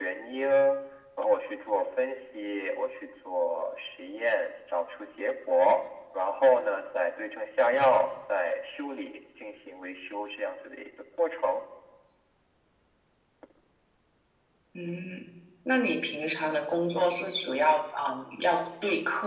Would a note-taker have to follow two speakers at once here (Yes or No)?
No